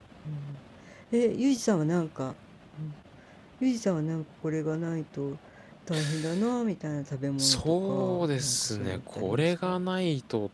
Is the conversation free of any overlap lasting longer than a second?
No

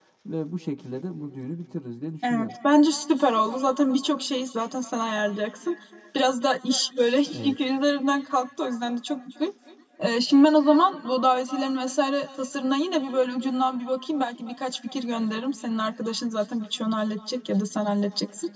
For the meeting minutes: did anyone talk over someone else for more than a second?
No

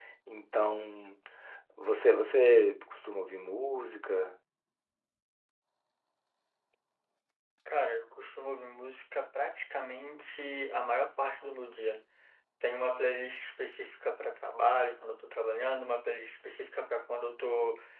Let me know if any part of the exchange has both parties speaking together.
No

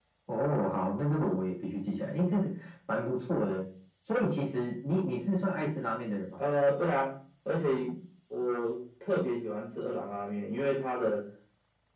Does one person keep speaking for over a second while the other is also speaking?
No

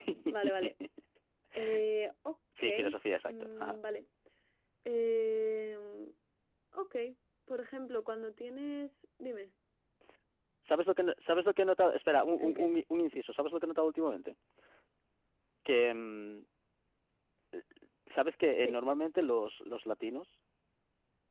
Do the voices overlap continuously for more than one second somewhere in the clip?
No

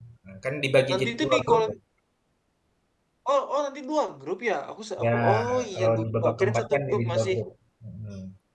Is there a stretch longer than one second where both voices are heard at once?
Yes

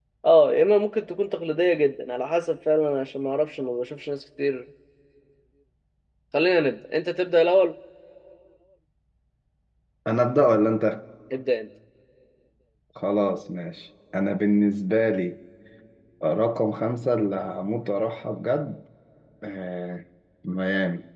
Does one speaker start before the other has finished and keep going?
No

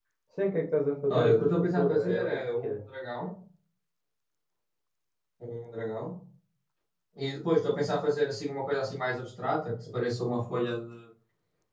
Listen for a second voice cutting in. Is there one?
Yes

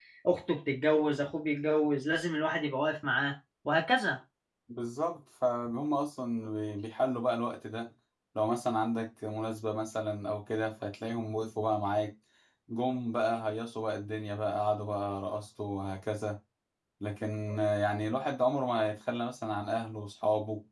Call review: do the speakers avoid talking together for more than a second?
Yes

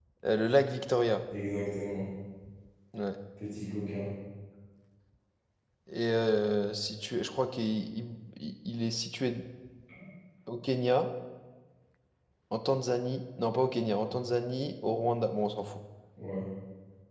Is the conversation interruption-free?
Yes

